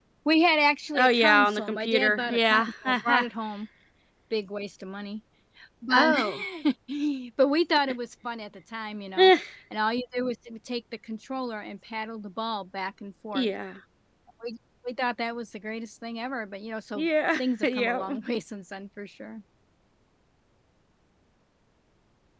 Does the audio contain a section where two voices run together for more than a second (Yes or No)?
Yes